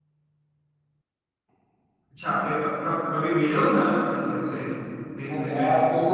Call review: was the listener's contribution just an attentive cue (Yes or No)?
No